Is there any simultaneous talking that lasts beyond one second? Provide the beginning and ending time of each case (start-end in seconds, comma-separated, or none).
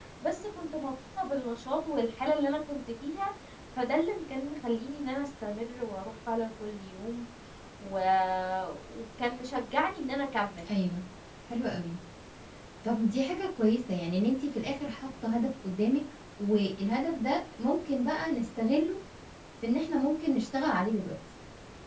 none